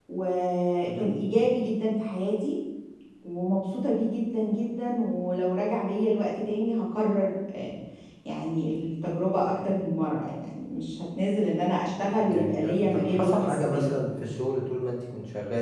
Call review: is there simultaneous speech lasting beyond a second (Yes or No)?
Yes